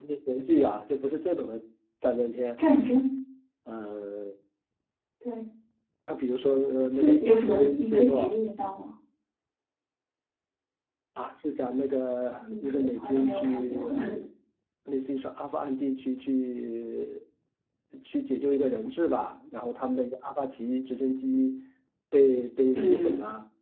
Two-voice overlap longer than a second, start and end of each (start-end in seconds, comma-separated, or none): 7.0-8.2, 12.4-13.9